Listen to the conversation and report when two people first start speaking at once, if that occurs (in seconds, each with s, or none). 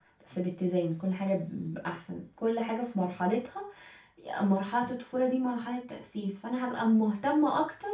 none